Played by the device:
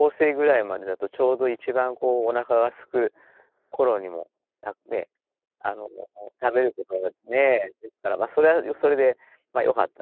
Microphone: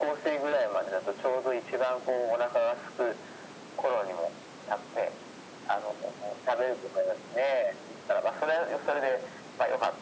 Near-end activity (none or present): none